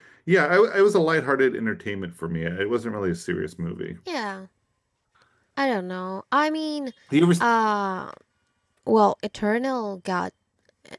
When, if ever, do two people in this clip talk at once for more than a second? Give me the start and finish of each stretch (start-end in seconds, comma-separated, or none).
none